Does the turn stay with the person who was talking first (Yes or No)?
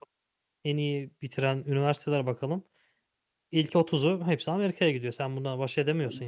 No